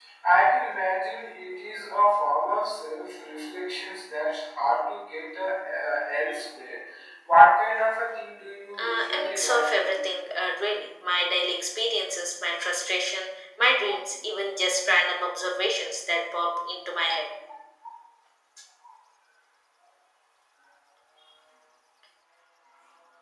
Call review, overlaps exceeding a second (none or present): present